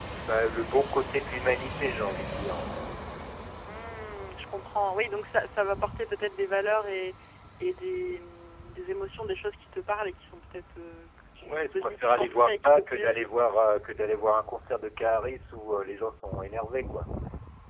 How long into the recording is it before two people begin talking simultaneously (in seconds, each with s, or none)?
11.4 s